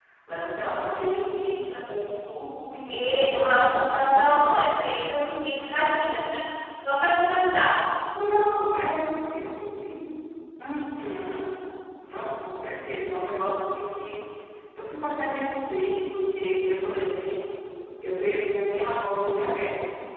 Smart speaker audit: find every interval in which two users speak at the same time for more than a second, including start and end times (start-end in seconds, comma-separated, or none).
2.9-4.2